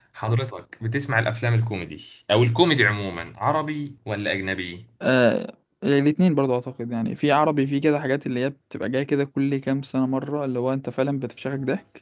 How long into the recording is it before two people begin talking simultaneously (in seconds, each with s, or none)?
none